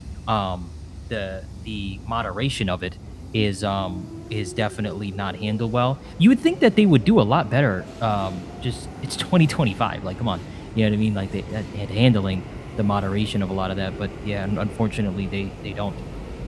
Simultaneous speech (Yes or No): No